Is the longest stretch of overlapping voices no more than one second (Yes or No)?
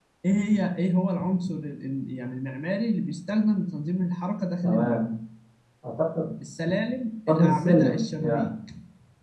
No